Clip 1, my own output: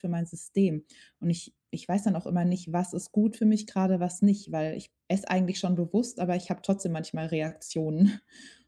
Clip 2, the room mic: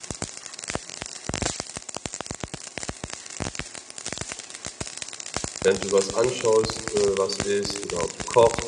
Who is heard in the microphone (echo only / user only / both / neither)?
user only